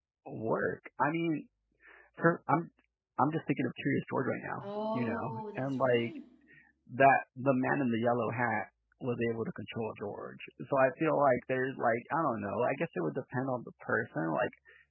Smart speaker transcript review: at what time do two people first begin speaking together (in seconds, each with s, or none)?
4.6 s